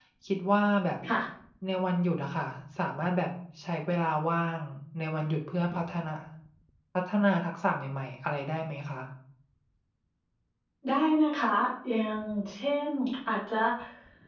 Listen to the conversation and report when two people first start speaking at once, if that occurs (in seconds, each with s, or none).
none